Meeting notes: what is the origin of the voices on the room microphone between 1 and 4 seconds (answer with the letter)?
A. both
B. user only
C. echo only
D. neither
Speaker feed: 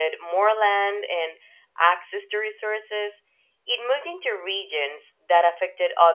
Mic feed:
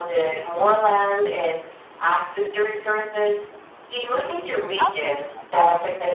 C